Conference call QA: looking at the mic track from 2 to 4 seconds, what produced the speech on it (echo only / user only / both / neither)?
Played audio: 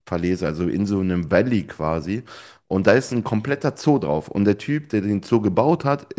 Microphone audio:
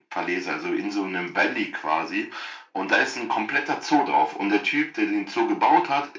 echo only